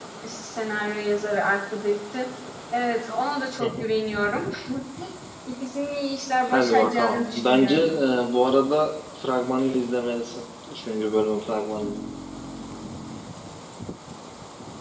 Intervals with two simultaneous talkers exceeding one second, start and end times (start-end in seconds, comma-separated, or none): 6.5-7.9